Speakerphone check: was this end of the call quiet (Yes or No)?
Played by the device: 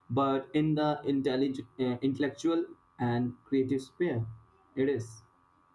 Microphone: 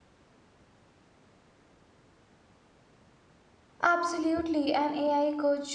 No